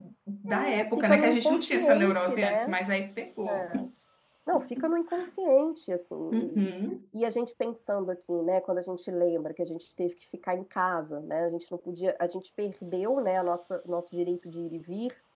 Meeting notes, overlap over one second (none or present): present